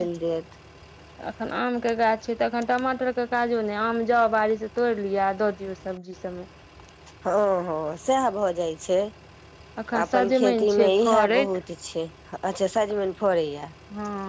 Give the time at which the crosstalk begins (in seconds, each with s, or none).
9.8 s